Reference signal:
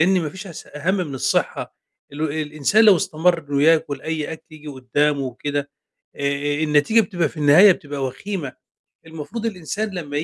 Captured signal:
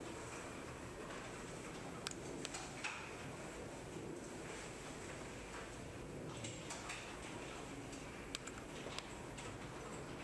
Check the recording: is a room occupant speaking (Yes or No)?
No